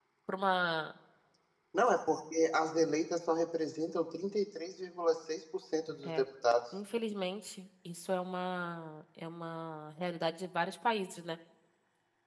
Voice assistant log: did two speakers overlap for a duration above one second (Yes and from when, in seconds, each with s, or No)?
No